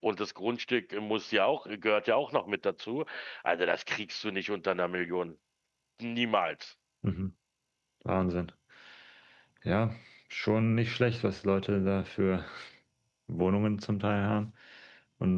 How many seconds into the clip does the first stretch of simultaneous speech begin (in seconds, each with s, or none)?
none